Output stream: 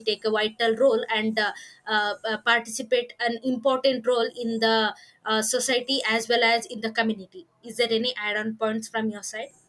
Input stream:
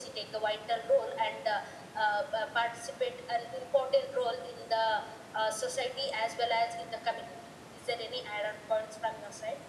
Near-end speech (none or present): none